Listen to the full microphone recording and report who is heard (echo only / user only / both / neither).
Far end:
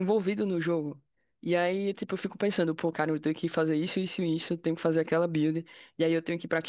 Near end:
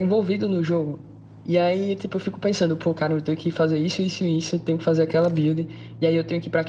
echo only